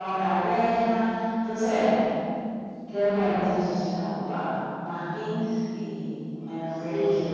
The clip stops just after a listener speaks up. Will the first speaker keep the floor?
No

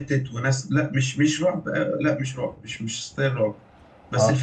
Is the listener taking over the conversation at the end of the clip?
No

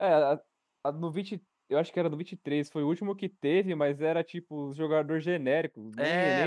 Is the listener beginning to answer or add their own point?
Yes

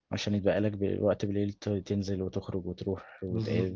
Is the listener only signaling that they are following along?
No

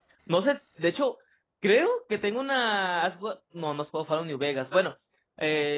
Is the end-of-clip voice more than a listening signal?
No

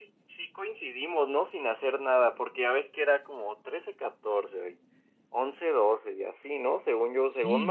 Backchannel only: No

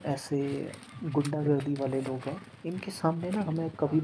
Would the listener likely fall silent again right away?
Yes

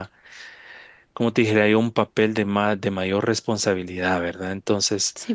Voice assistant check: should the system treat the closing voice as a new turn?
No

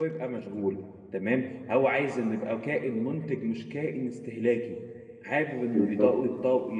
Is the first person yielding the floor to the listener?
No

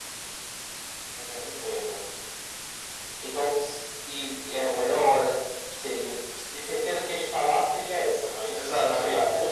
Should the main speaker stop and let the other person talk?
Yes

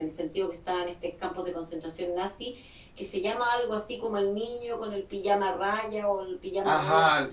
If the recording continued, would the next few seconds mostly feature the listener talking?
Yes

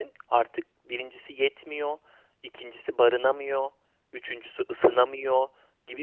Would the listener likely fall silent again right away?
Yes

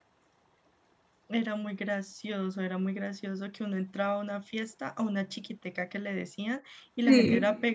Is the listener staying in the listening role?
Yes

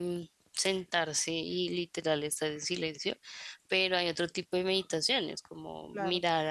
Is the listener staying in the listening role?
Yes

